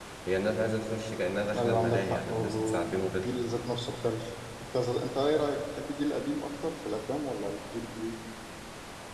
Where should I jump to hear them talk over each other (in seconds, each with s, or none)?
1.5 s